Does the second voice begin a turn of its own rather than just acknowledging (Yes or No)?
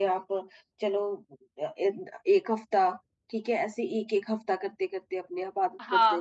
Yes